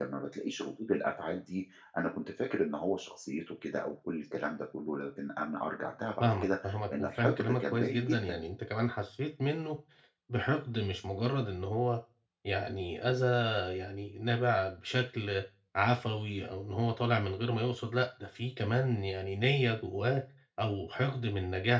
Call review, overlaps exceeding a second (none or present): present